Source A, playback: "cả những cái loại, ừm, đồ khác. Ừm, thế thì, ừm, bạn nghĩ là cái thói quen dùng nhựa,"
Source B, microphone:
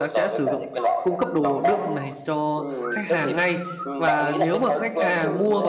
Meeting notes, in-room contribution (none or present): present